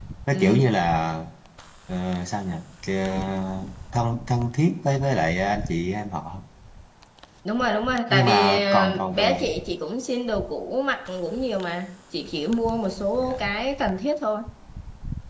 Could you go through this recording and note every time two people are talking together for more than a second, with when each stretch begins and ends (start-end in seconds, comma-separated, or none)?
8.1-9.5